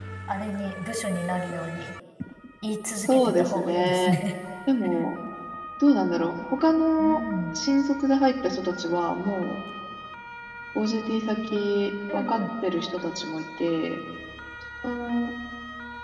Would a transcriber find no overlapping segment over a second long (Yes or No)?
No